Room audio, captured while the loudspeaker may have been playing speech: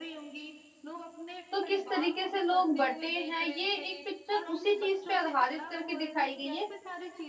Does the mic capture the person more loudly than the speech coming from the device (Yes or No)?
Yes